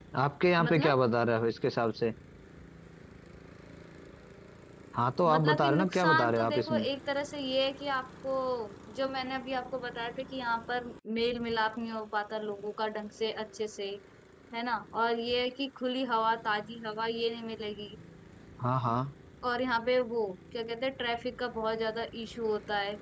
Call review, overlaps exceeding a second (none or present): present